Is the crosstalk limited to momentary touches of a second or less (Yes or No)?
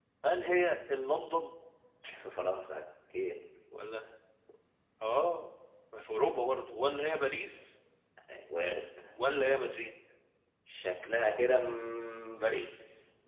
Yes